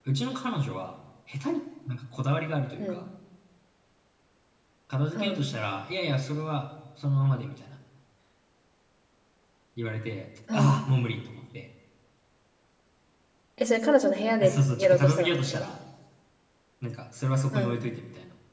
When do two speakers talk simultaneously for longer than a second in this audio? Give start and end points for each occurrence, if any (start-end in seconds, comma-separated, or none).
14.4-15.6